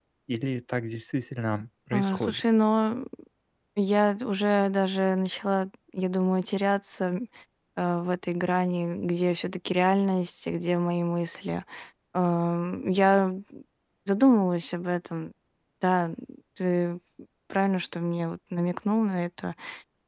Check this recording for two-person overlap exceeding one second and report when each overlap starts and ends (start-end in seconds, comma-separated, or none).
none